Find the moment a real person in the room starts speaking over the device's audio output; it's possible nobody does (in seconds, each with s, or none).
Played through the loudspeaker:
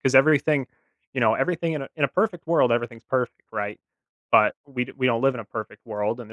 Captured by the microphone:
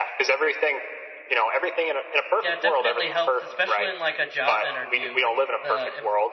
2.4 s